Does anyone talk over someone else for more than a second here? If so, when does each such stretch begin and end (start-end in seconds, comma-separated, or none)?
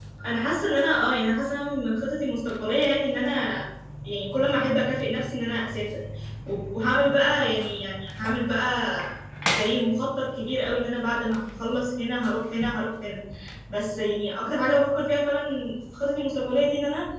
none